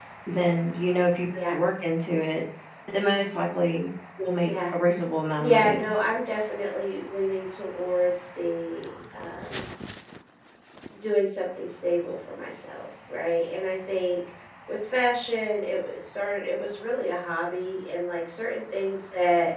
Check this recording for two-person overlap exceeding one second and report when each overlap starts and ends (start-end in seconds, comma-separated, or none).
none